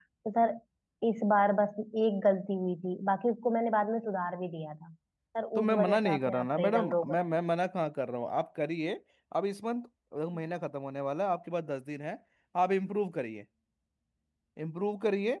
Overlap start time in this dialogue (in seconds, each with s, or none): 5.5 s